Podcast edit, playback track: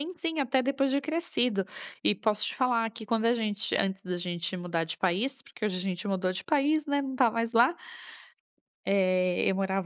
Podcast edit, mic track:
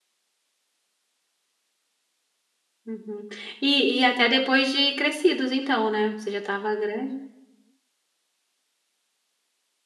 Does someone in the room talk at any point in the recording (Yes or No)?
Yes